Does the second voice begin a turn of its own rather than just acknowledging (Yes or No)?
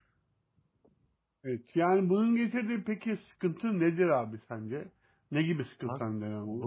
Yes